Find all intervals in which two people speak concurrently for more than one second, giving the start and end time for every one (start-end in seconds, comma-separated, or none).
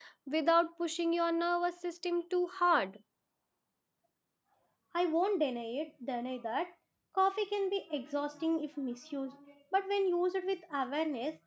none